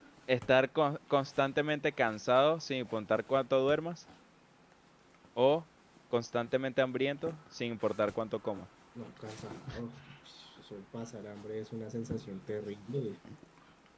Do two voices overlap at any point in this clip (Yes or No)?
No